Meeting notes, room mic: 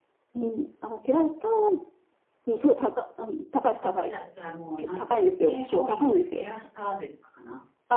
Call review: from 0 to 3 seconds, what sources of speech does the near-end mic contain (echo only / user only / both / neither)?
echo only